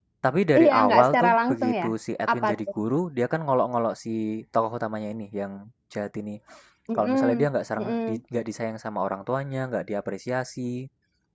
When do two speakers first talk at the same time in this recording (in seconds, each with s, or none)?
0.6 s